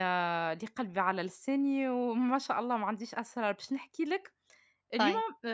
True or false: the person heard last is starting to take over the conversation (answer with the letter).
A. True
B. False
B